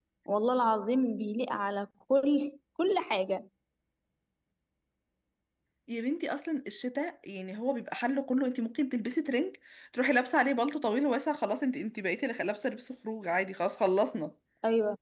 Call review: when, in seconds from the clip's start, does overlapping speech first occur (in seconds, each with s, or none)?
none